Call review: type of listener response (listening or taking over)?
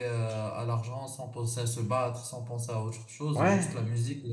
listening